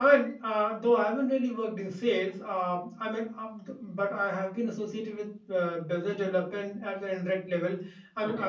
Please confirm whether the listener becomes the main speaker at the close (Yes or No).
No